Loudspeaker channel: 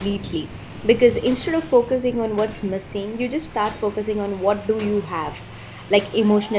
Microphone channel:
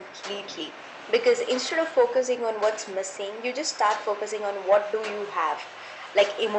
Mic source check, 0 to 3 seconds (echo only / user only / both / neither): echo only